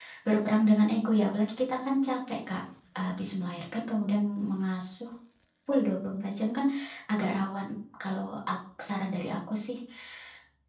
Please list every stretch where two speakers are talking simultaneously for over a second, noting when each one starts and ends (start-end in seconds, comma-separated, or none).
none